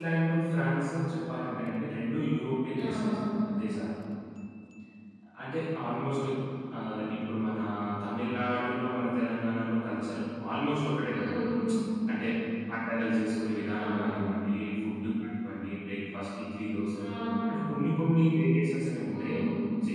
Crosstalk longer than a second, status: none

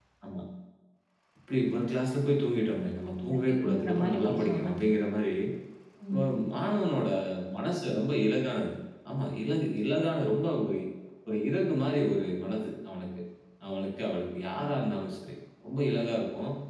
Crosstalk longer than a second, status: present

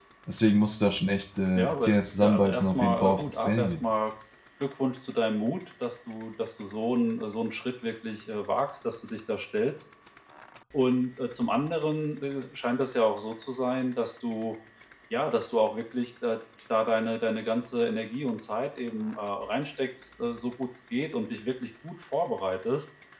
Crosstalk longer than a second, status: present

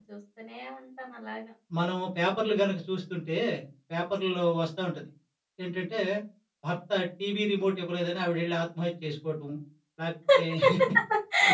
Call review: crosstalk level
none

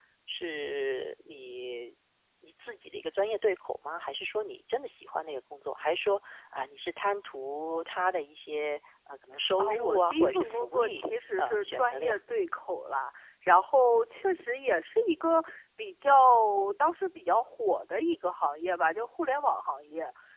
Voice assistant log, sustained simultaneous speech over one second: present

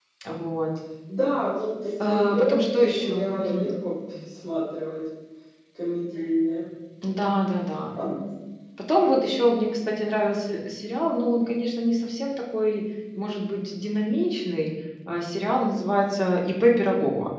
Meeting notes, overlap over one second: present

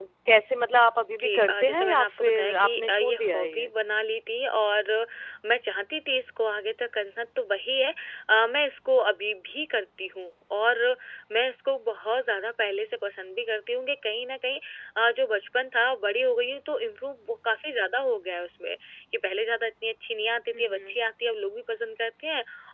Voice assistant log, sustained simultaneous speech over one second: present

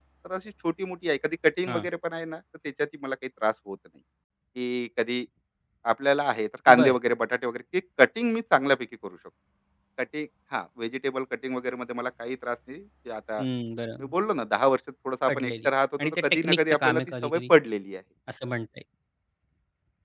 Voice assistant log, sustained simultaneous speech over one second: present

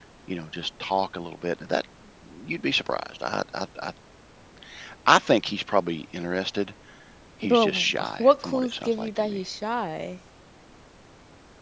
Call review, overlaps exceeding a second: present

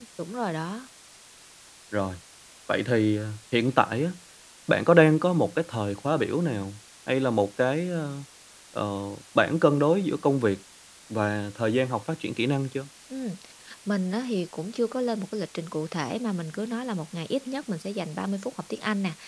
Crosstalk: none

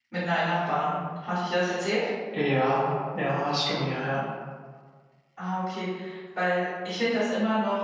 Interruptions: none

